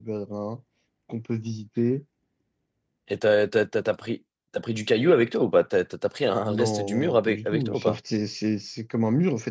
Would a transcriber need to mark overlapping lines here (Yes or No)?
Yes